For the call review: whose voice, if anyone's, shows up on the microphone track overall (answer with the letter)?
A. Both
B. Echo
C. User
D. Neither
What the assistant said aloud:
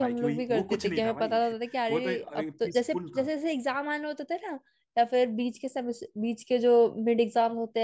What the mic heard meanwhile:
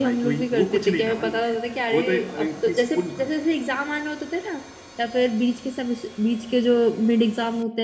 B